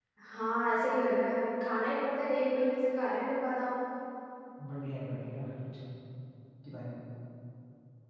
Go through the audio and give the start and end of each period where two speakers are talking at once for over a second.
none

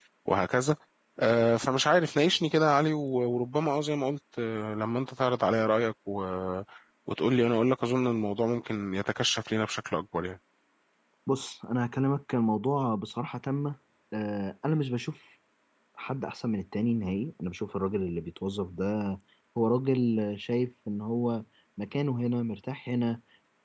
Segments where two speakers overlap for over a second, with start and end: none

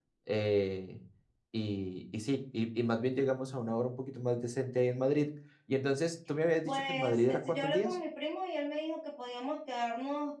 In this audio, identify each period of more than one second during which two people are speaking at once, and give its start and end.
6.7-8.0

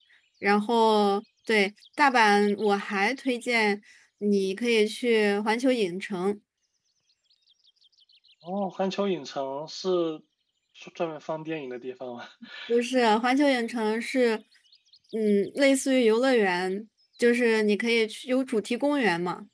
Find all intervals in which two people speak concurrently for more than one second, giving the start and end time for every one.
none

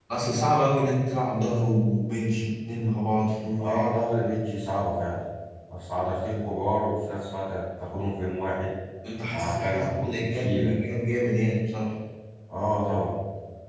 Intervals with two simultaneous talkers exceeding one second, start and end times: 9.3-10.7

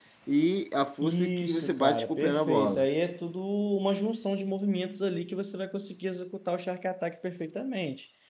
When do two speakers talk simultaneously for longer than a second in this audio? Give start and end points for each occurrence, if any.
1.0-2.9

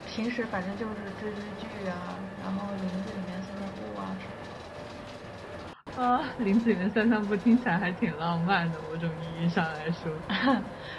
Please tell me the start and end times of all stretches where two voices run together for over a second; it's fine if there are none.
none

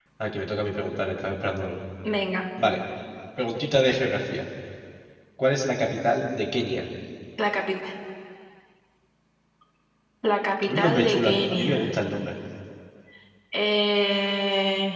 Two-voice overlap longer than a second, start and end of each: 10.7-11.8

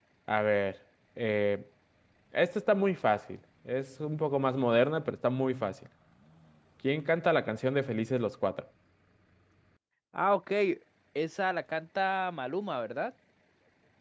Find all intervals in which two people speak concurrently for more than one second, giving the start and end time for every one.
none

